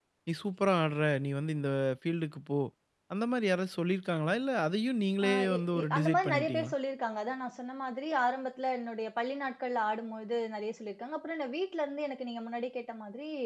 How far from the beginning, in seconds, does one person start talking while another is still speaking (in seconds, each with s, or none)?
5.2 s